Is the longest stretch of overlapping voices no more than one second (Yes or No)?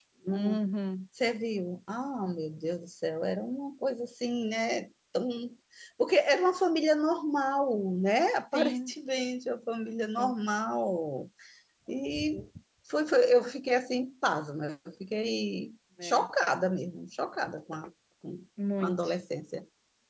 Yes